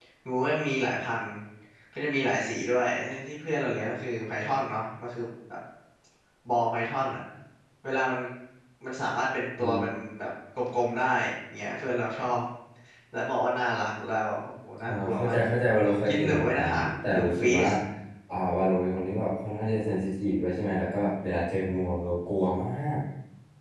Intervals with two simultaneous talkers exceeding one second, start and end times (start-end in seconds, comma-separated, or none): 16.1-17.6